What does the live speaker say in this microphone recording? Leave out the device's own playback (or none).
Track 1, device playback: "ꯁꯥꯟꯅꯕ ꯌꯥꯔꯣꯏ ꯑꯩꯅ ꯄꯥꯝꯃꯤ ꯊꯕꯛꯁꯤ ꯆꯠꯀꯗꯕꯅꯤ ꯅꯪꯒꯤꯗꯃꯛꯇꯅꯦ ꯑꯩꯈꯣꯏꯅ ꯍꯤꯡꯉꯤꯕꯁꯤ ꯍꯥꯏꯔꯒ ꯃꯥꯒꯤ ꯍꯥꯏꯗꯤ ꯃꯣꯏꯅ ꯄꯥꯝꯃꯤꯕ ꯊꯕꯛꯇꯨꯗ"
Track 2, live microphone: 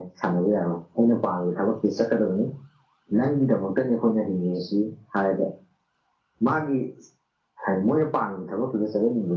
none